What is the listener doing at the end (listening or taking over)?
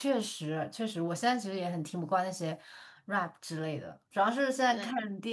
listening